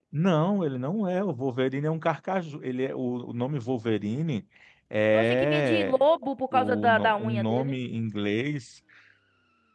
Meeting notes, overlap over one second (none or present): present